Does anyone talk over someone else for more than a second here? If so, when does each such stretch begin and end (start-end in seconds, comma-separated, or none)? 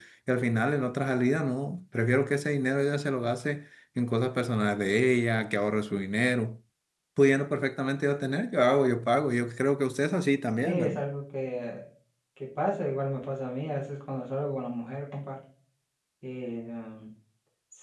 none